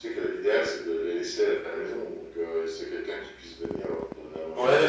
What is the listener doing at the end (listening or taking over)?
taking over